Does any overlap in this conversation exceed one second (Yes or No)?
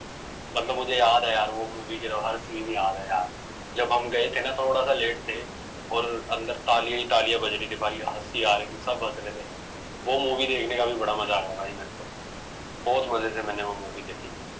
No